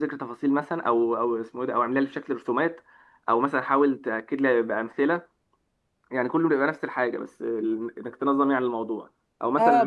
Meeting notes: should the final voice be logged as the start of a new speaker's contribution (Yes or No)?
Yes